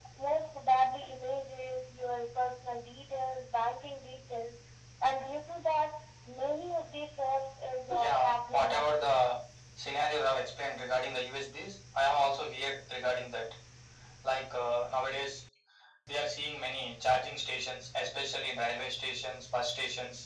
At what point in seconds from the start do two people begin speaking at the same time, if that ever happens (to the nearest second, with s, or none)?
8 s